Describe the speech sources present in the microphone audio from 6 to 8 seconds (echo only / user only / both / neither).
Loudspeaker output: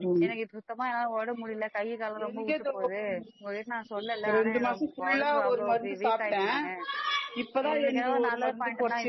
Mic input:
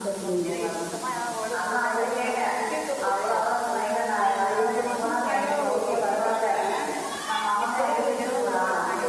both